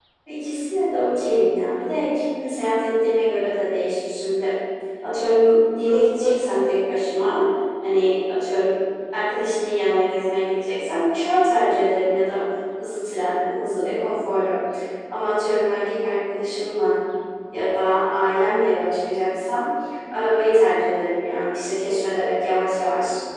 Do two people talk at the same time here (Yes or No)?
No